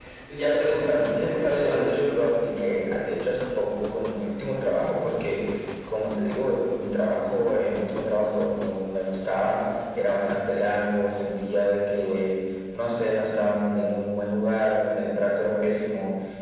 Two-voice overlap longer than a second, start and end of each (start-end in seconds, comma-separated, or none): 0.6-1.9